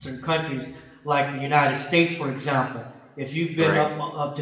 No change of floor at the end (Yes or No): Yes